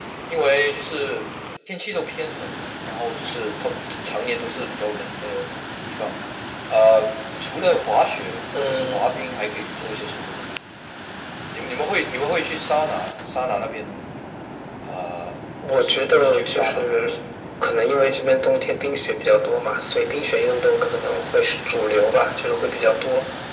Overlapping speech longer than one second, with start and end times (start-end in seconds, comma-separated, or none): 15.7-17.1